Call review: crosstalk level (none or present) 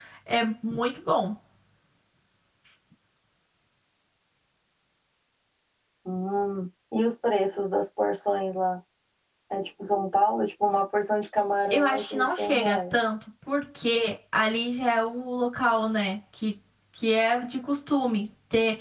present